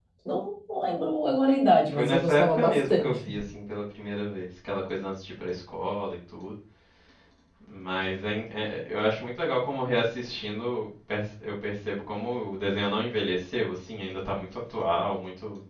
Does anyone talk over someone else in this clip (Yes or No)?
Yes